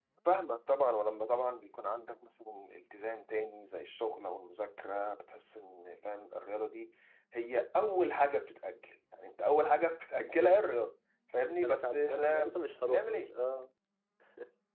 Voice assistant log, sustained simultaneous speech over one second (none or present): present